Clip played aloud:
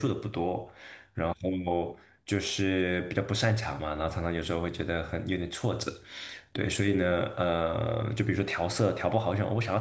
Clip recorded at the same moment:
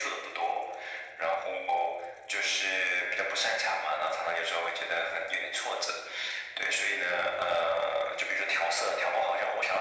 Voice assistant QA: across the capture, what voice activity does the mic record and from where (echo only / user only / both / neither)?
echo only